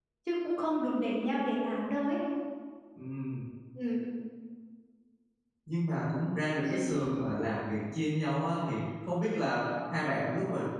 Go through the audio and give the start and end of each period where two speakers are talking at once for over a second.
none

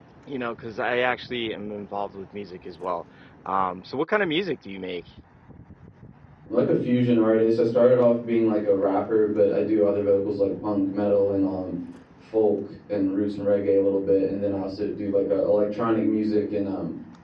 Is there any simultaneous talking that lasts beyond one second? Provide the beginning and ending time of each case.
none

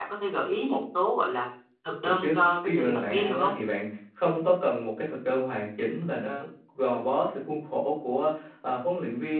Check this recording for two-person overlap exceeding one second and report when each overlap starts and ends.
2.0-3.5

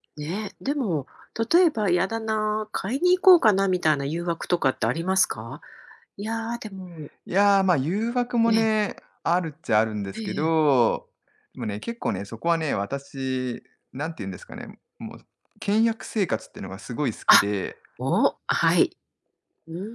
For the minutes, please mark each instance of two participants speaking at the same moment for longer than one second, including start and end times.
none

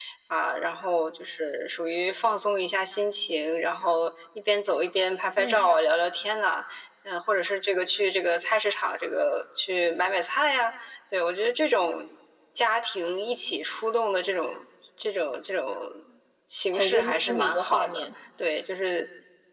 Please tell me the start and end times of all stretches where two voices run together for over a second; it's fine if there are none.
16.7-18.0

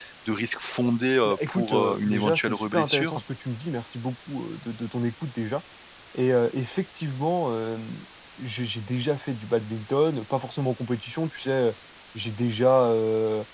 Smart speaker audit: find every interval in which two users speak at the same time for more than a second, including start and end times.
1.2-3.2

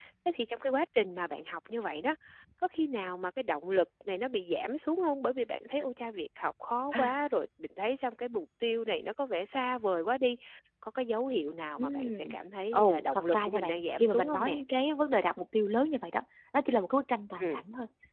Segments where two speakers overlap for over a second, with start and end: 12.7-14.6

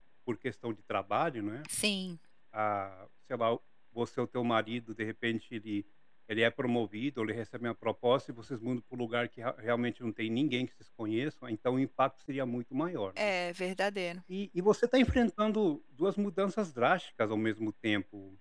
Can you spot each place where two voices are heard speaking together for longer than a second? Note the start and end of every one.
none

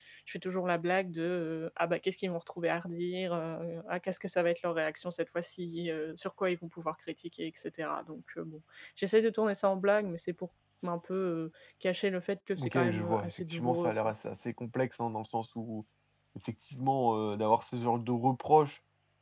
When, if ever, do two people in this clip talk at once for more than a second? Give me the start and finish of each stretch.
12.6-14.1

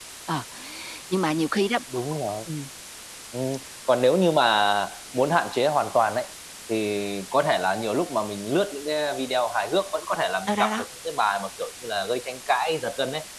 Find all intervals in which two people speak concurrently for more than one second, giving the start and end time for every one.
none

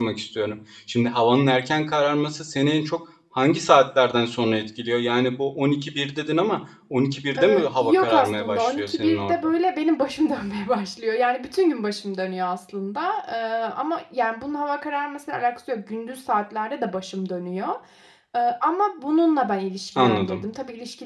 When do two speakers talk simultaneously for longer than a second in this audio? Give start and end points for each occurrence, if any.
7.4-9.5

